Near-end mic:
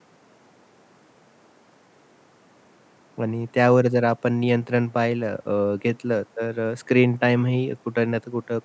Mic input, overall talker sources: user only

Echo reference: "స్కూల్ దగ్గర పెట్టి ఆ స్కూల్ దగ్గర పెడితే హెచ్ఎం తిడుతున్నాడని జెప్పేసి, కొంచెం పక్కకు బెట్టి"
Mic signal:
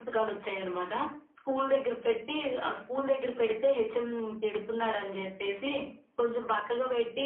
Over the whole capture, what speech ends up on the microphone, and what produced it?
echo only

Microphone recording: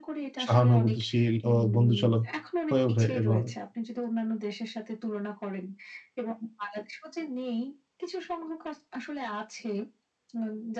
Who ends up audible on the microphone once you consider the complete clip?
both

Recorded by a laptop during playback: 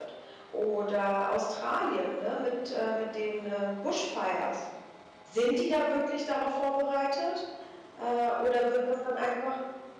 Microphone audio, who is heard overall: user only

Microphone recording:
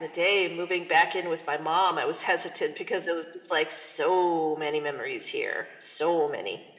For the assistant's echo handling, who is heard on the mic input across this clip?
echo only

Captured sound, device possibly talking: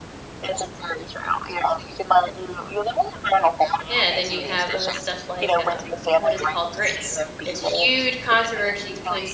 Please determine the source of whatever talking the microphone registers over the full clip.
both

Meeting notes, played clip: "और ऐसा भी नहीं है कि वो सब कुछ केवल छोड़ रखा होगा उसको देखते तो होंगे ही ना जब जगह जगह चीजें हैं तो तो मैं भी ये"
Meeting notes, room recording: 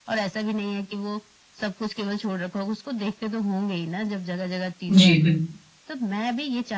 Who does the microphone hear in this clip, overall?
both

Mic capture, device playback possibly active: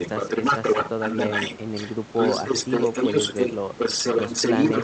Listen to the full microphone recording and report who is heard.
both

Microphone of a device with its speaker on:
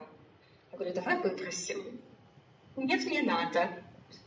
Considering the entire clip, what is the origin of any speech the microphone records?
echo only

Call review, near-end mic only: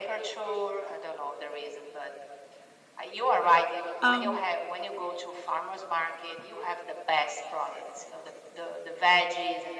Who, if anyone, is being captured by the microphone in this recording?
both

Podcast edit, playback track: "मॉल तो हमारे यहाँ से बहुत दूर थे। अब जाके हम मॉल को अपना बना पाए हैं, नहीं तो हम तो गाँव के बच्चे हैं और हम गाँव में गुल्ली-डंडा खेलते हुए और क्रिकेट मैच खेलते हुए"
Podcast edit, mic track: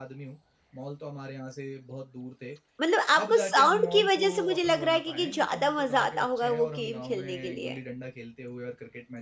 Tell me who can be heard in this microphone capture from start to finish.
both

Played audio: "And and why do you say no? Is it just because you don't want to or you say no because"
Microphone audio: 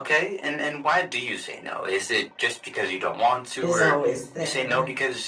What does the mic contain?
both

